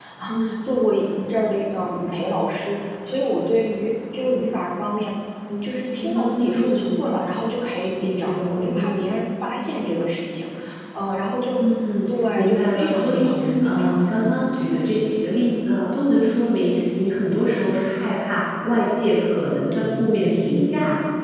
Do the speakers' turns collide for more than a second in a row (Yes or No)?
Yes